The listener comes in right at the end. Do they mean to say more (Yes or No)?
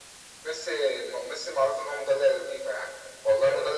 No